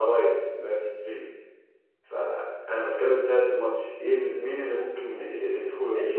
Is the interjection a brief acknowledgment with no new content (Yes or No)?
No